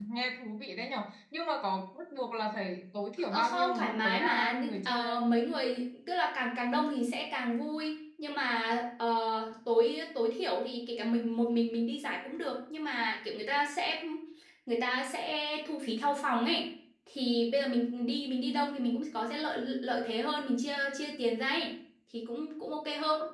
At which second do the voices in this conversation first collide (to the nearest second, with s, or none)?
3 s